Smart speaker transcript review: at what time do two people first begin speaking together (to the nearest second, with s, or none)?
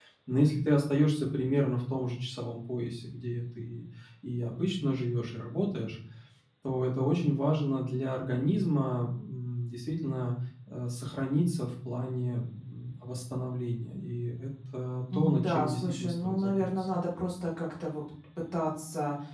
15 s